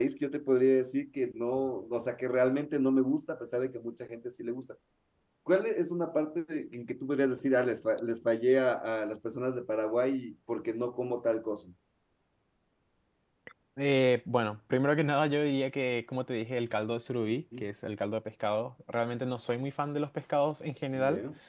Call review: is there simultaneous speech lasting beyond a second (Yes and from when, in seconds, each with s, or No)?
No